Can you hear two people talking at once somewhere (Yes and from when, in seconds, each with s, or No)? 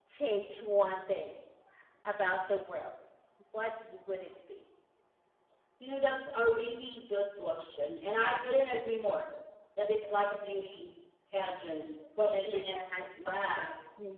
Yes, from 12.3 s